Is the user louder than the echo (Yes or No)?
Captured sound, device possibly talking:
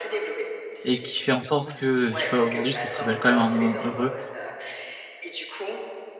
Yes